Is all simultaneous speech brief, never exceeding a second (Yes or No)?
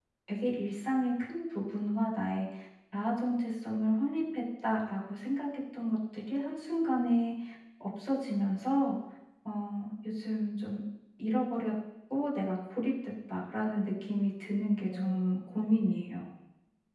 No